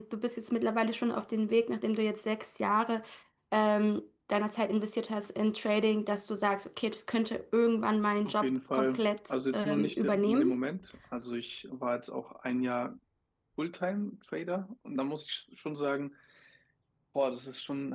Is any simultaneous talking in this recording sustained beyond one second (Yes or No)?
Yes